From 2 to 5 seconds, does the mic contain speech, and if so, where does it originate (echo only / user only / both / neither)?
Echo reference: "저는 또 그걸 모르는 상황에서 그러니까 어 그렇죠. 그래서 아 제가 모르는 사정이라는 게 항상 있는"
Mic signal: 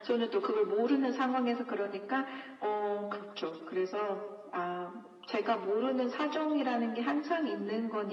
echo only